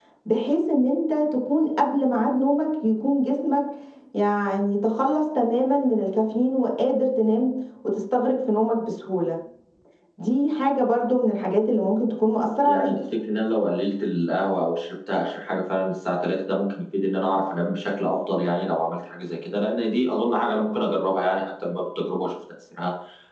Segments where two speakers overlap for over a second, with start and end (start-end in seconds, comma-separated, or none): none